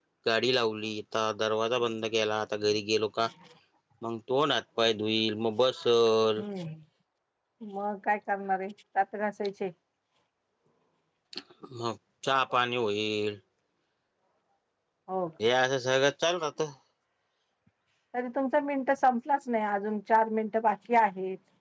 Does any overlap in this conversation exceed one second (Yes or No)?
No